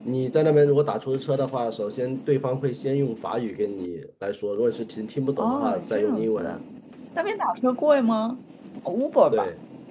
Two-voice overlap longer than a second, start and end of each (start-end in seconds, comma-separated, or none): 5.4-6.6